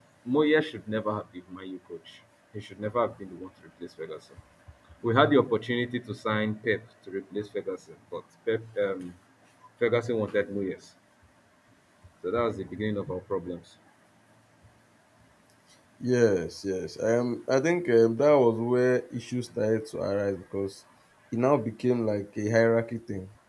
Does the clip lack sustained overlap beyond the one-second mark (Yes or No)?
Yes